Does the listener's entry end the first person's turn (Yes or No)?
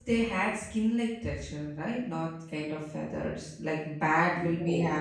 No